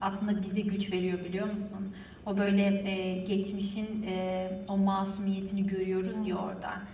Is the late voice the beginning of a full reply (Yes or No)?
No